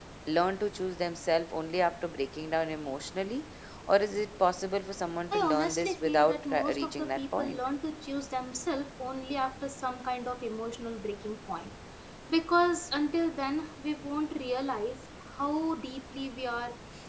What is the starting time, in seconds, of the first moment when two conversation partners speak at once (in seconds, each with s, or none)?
5.3 s